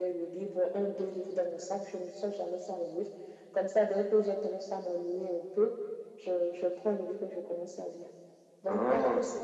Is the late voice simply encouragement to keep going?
Yes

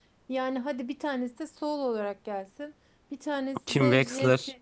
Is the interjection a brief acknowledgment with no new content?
Yes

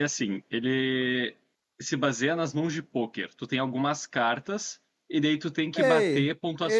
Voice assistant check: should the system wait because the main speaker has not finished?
No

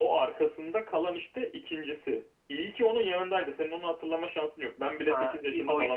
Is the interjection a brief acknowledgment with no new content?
No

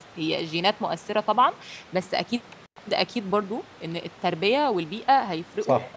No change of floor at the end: No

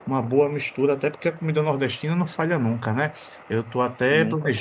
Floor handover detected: No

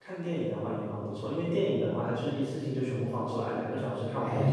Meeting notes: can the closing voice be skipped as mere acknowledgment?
No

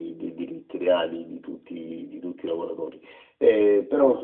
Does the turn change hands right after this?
Yes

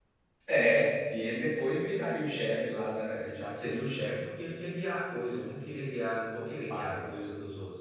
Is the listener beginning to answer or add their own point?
No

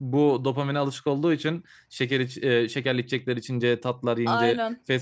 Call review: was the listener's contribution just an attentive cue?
Yes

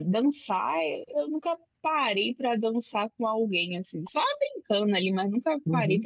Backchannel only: Yes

